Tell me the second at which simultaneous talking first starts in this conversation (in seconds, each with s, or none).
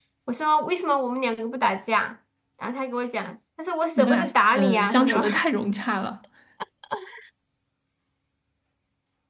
4.0 s